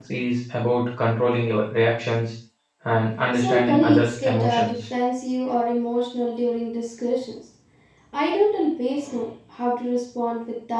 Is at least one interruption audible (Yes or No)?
Yes